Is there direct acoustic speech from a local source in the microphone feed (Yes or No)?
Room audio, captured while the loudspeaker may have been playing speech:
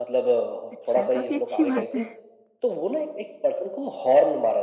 Yes